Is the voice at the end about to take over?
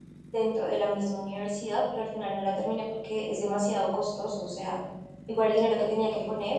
No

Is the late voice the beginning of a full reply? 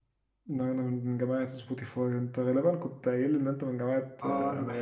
Yes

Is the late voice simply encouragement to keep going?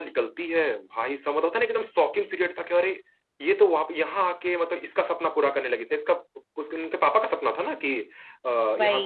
Yes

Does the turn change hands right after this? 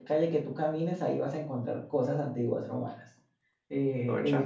No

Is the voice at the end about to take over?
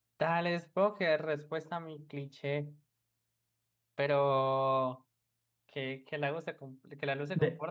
No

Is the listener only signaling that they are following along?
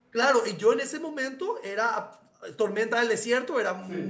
Yes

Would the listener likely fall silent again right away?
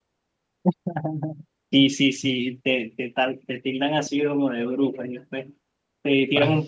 Yes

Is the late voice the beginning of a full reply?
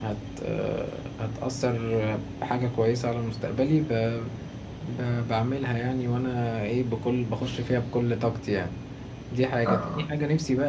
No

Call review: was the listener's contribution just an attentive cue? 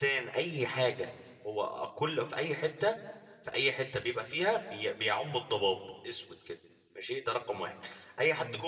Yes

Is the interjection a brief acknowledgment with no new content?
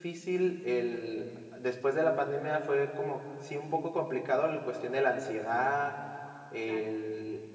Yes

